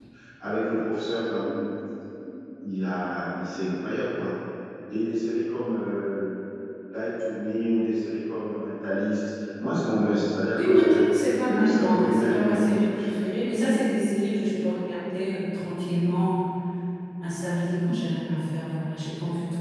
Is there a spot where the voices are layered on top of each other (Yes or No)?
Yes